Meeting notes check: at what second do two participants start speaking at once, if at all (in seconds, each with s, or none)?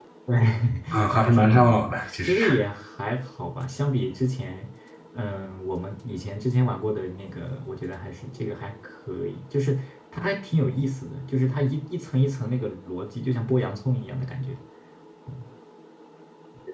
1.1 s